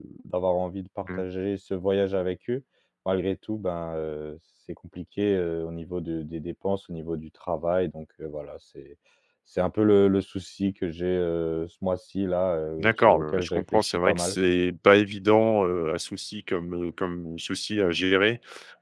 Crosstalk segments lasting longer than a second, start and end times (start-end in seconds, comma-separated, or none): 12.8-14.4